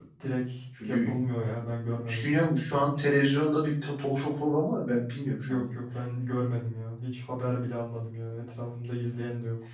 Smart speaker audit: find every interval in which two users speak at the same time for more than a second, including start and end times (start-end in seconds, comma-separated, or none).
none